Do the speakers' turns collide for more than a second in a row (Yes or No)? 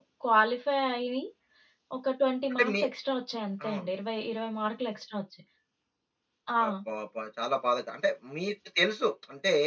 No